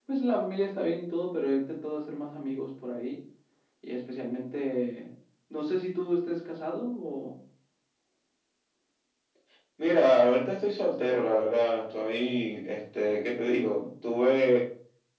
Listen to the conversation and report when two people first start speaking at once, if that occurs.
none

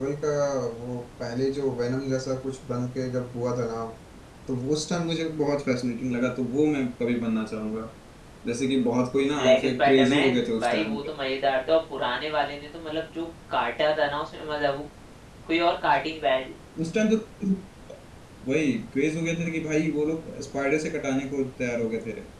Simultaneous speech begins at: 9.2 s

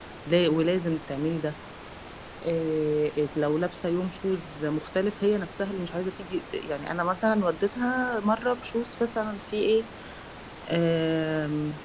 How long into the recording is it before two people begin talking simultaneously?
none

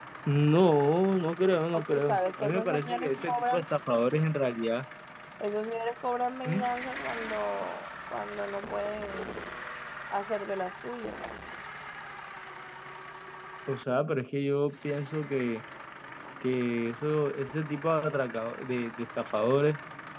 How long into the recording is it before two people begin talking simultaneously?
1.7 s

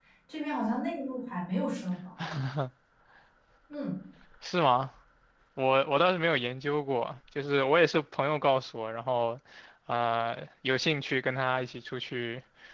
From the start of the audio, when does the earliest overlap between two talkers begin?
none

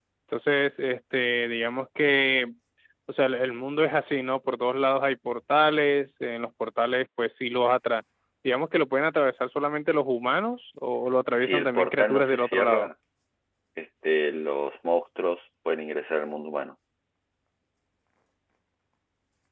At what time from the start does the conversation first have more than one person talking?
11.3 s

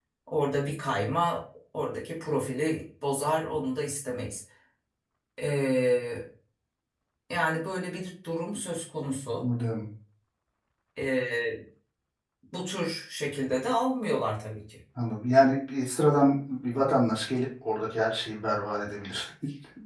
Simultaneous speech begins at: none

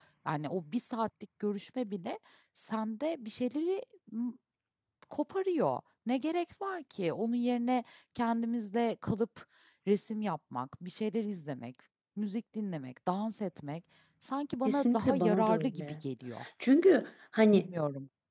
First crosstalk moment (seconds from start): 14.7 s

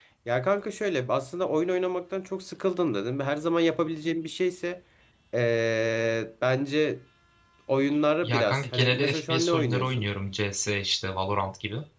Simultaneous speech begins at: 8.2 s

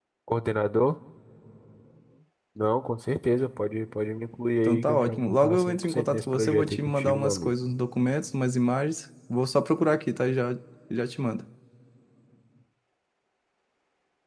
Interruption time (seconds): 4.6 s

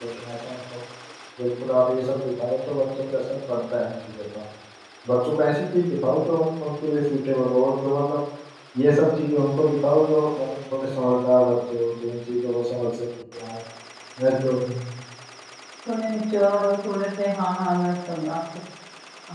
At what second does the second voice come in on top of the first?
none

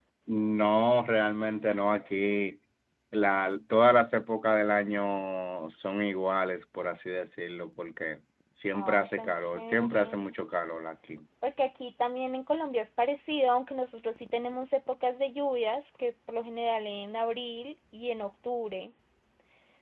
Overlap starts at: 8.7 s

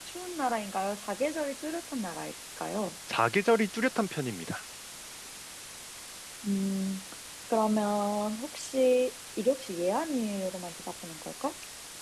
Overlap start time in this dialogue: none

